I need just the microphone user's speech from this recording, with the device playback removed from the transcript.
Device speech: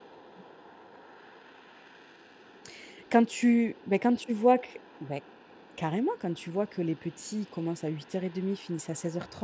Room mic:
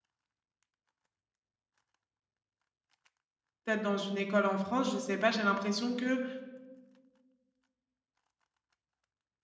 peut-être dans une école en France, je sais pas, j'ai l'impression que

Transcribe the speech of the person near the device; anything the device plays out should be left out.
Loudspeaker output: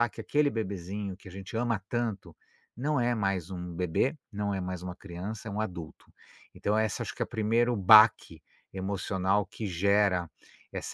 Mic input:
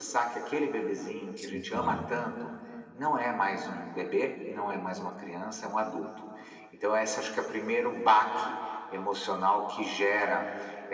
Sim, claro.

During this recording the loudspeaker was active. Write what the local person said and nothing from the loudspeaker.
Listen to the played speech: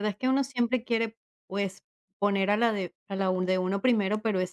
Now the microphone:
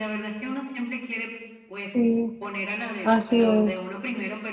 Sí, así es.

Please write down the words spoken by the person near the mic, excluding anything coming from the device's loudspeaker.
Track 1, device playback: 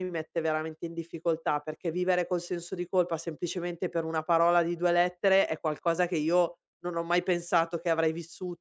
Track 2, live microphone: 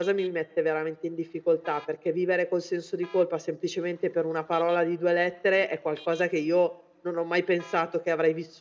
none

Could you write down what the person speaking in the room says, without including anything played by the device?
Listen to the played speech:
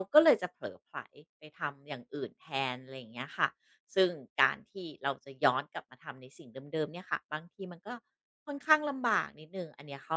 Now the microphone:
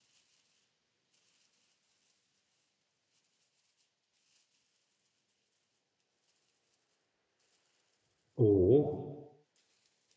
โอ้โห

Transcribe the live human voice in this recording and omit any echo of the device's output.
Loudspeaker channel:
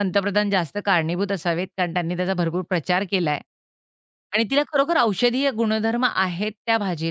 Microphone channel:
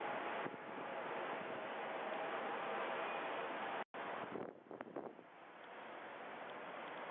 none

